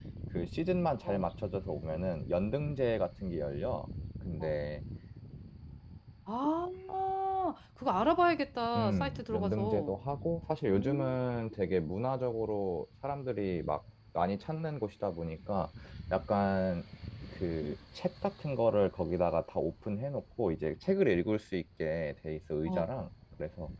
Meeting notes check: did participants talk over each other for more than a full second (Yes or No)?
Yes